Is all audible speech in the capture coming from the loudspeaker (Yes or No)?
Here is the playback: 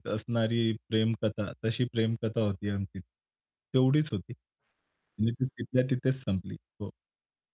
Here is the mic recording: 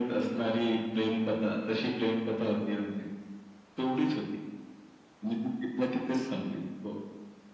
Yes